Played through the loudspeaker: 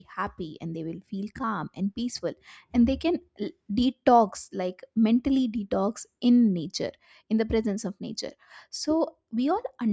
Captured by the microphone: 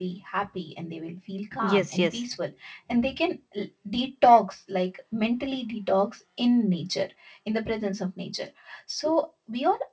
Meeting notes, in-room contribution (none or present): present